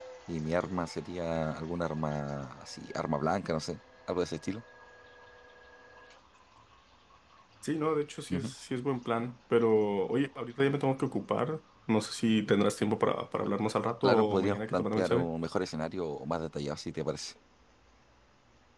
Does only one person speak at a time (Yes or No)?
No